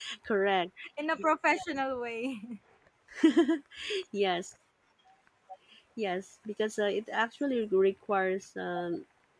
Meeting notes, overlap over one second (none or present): none